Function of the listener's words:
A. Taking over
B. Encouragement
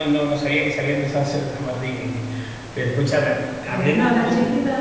A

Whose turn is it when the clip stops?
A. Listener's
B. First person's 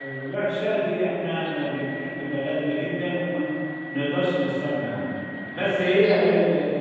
B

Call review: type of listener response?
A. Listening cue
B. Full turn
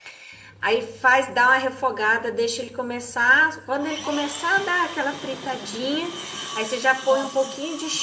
A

